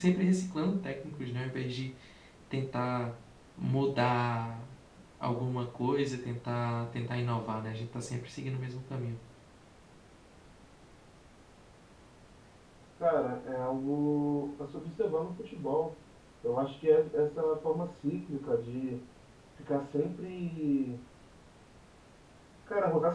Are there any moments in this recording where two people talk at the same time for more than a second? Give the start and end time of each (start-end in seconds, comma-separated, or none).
none